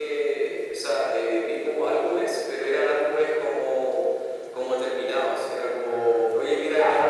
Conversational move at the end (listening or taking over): listening